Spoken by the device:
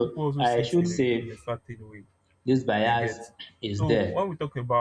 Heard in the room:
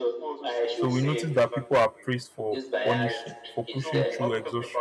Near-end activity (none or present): present